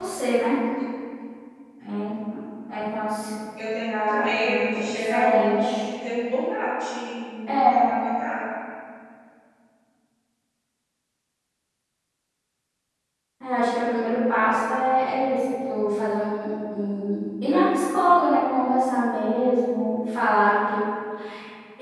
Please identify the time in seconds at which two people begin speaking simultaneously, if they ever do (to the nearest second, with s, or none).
4 s